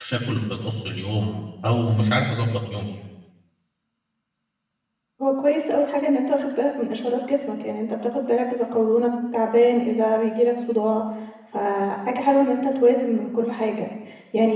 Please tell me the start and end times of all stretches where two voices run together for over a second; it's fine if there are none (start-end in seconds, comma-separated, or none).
none